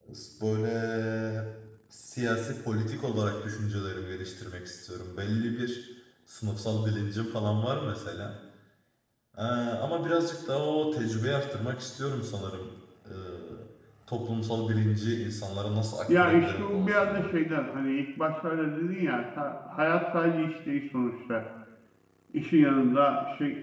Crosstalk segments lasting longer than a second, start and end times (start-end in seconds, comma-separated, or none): 16.1-17.3